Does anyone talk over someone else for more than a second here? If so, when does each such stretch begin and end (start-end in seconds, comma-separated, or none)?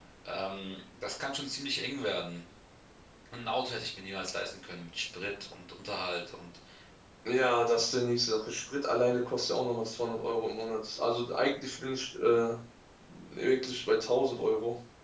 none